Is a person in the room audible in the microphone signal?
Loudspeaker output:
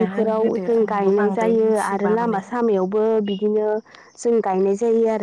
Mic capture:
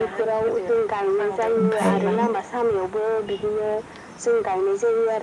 Yes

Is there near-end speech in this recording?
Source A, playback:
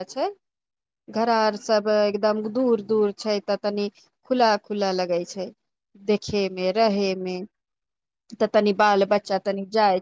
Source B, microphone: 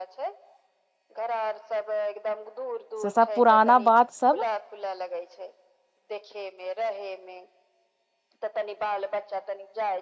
Yes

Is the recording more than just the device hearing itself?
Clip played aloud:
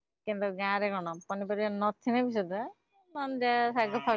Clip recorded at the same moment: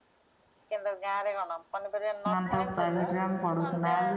Yes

